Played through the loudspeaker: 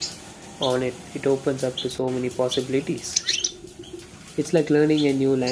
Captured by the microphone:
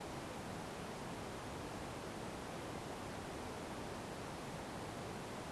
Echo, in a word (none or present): none